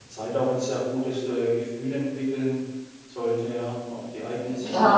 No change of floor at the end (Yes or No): No